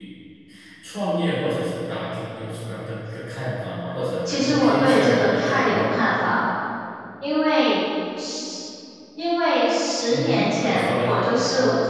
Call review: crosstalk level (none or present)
present